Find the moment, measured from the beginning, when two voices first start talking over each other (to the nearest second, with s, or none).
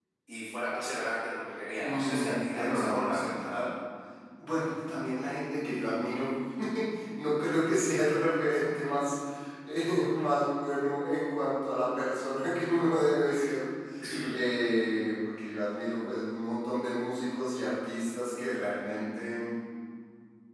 2 s